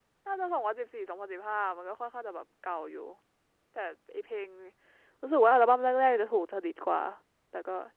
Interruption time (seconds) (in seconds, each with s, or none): none